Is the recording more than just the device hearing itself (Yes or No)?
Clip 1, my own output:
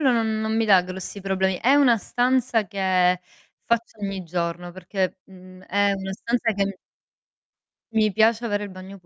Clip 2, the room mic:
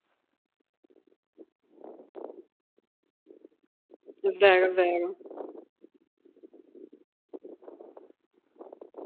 Yes